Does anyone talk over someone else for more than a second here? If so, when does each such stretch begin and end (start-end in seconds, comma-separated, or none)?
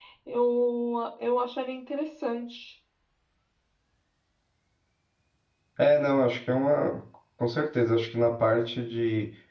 none